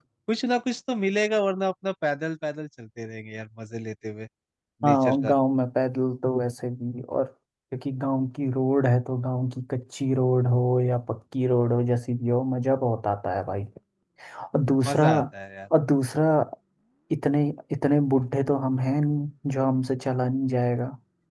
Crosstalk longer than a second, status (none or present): none